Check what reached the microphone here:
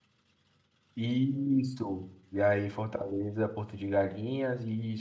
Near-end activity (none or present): present